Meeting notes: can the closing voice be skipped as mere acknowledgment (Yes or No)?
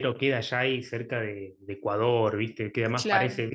Yes